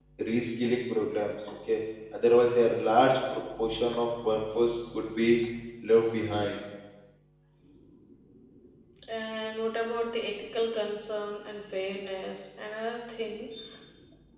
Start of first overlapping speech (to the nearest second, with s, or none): none